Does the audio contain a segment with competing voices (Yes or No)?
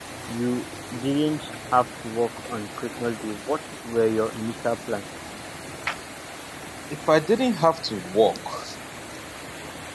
No